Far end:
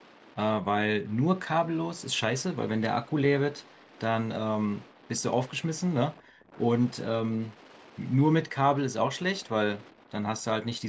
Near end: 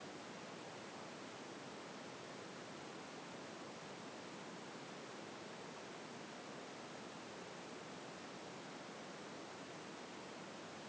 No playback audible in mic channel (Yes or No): Yes